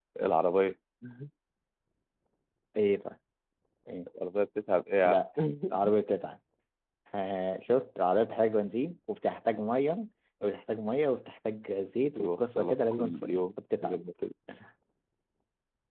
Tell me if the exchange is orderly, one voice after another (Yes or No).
No